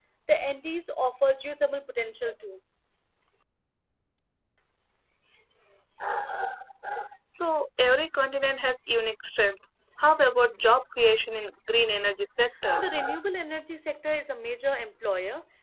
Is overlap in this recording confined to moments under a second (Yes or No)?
Yes